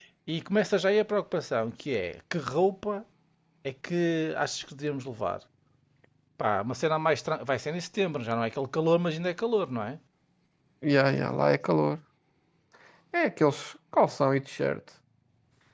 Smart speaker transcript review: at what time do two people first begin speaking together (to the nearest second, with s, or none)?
none